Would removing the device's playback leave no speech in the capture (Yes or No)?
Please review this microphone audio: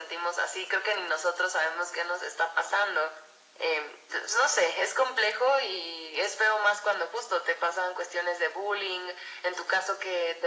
Yes